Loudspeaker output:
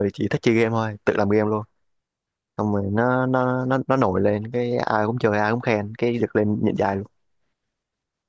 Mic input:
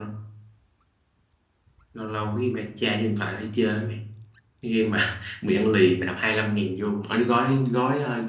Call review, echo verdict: none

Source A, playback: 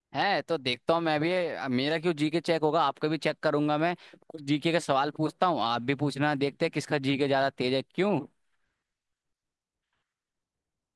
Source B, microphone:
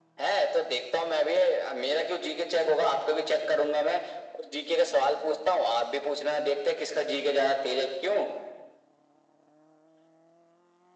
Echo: present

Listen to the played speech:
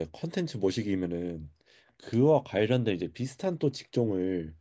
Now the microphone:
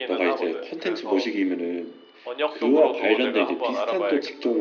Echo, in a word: present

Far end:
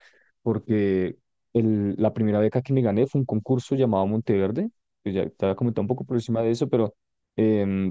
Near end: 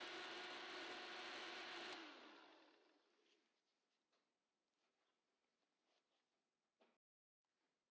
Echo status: none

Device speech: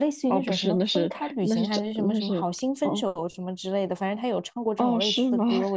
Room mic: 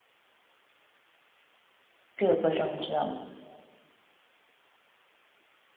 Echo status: none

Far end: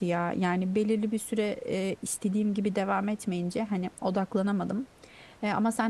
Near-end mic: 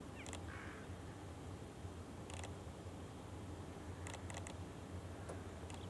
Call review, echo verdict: none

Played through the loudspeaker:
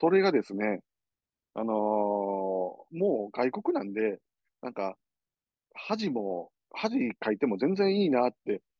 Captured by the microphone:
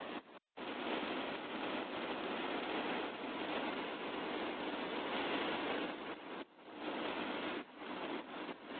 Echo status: none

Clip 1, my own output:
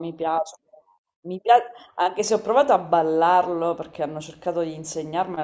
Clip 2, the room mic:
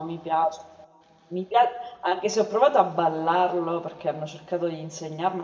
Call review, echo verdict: present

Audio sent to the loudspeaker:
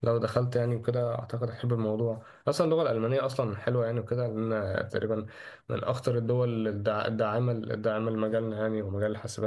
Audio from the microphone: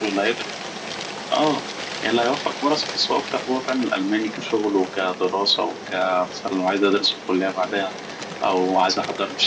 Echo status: none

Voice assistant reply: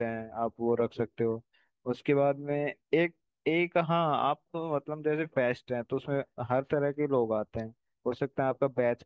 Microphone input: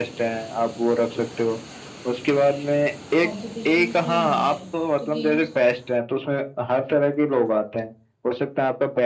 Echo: present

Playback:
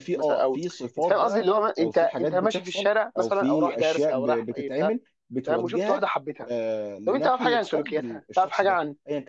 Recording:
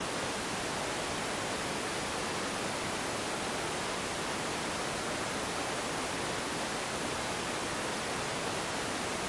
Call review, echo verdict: none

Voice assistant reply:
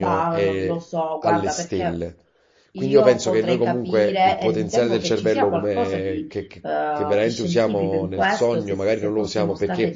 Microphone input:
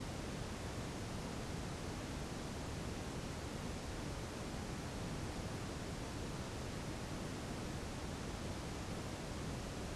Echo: none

